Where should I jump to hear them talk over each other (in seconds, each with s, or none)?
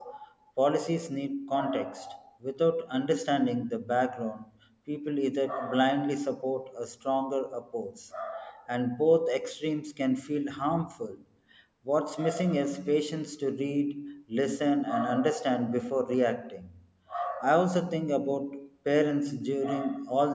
none